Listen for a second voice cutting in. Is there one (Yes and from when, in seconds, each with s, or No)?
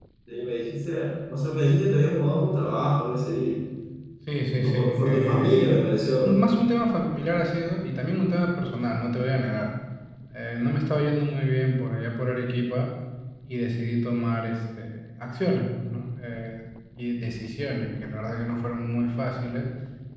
Yes, from 4.6 s